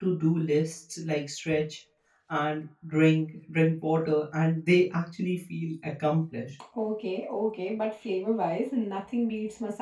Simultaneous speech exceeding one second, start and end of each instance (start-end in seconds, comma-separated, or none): none